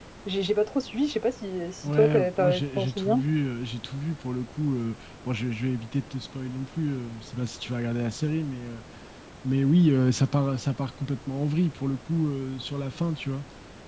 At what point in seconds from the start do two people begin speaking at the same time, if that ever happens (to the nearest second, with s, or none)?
2 s